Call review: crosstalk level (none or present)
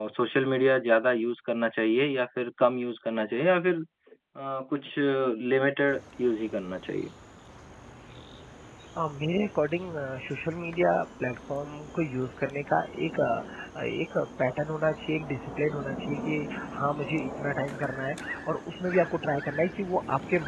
none